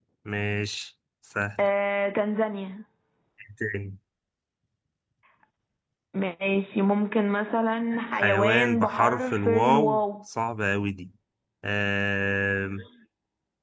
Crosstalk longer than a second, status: present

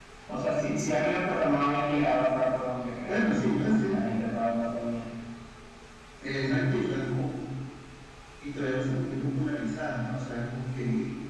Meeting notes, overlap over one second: none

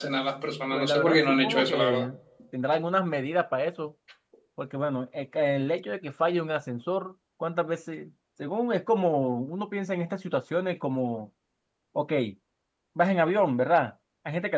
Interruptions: present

